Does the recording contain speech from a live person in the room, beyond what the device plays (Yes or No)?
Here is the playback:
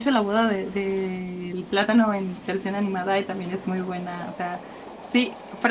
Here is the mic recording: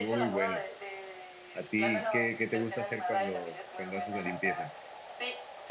Yes